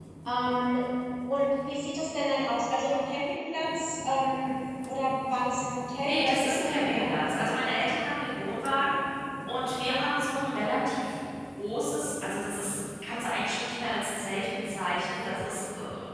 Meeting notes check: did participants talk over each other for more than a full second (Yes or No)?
Yes